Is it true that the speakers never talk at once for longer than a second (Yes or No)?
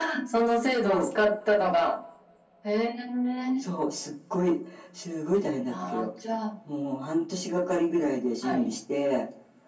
Yes